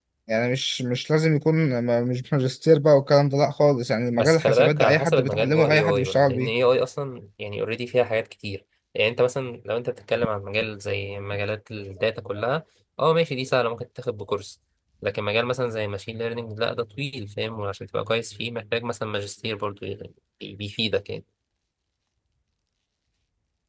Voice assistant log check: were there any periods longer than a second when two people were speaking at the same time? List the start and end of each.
4.1-6.5

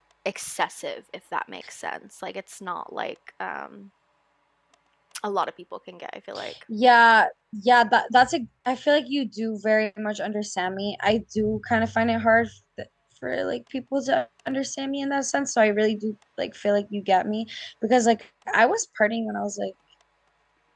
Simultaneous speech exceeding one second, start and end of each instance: none

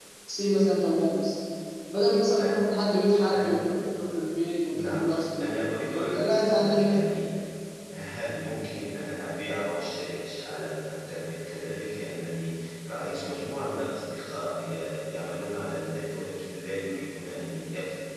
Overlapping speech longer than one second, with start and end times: 5.4-6.9

